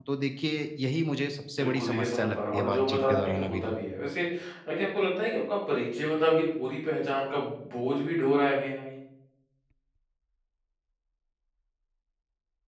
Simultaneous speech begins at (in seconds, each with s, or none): 1.6 s